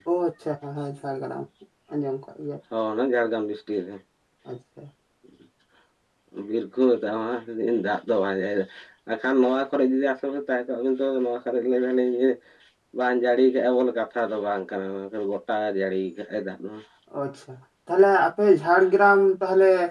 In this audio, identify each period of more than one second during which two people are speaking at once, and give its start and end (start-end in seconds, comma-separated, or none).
none